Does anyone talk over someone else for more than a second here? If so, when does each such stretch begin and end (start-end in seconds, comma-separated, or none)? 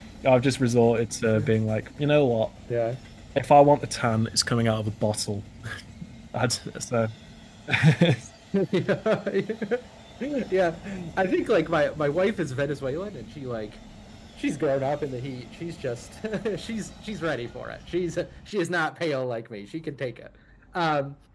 none